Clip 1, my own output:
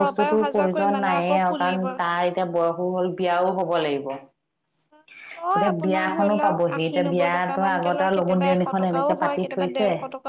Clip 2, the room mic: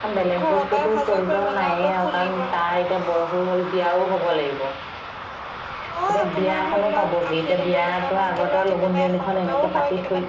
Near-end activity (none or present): none